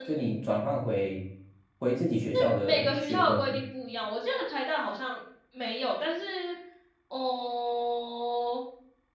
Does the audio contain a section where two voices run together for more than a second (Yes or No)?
Yes